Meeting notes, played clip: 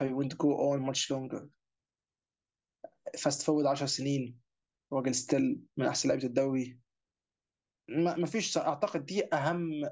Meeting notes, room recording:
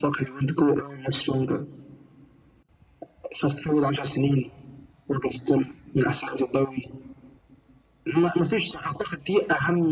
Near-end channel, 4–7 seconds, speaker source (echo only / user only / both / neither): echo only